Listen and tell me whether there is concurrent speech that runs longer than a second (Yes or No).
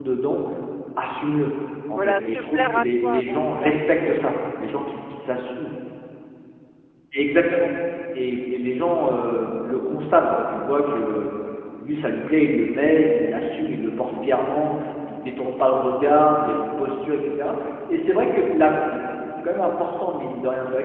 Yes